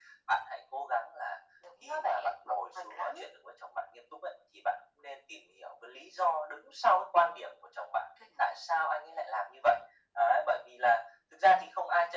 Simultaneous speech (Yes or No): Yes